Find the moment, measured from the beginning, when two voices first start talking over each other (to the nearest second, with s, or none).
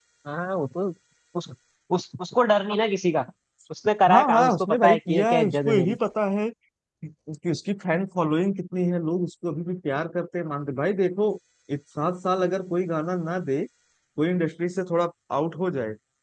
4 s